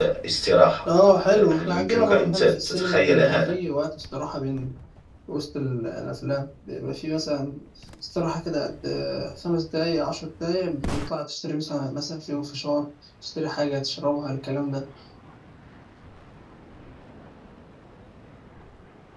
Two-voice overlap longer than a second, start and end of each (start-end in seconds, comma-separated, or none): 1.5-3.5